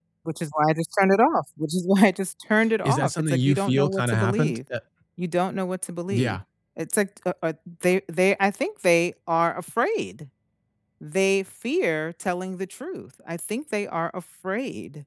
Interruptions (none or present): present